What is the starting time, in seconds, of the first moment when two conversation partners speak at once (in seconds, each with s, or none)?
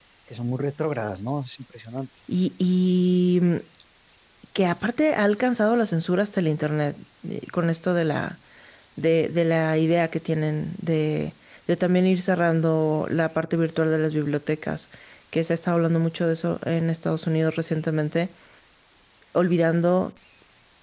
none